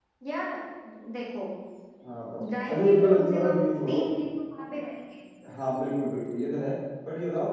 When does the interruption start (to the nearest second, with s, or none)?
3 s